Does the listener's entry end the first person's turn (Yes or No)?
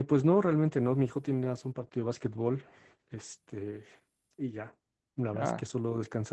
No